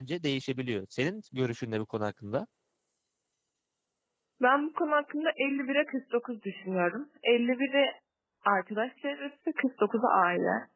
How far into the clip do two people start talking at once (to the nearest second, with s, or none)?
none